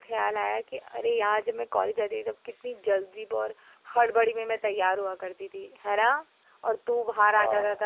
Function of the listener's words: listening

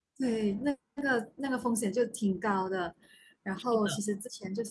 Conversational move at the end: listening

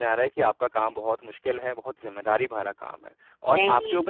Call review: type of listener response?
listening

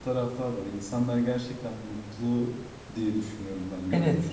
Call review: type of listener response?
taking over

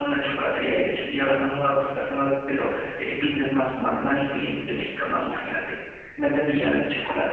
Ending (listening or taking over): listening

